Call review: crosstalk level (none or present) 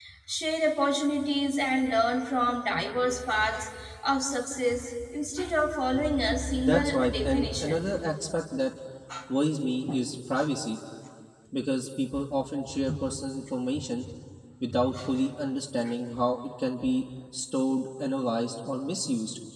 present